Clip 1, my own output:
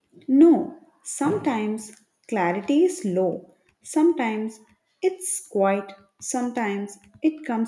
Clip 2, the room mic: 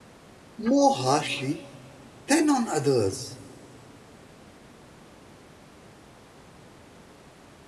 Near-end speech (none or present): present